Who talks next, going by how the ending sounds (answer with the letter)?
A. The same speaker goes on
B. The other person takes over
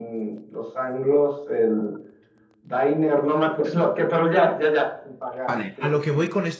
B